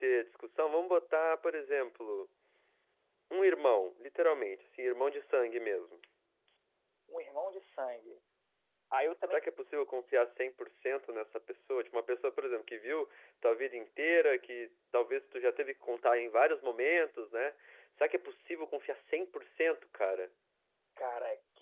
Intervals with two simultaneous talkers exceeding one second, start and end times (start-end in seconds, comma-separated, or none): none